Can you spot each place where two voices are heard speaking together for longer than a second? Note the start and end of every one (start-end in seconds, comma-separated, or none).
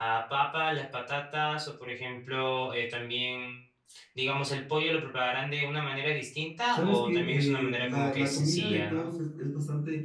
6.7-9.1